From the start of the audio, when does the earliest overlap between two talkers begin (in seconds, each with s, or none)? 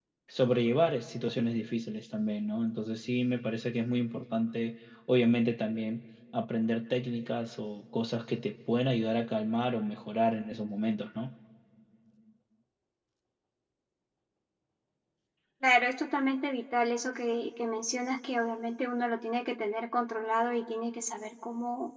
none